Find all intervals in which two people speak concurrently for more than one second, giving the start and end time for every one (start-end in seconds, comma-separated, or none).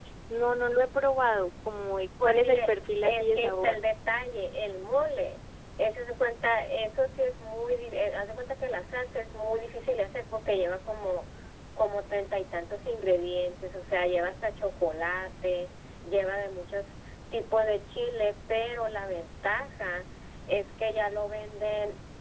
2.2-3.8